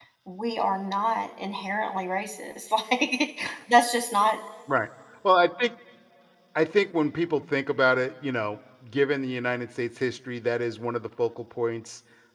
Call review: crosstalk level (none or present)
none